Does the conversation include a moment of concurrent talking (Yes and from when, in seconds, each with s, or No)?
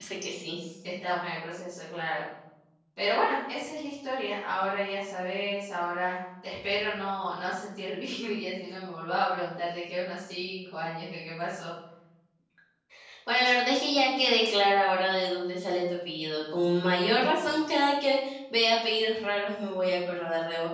No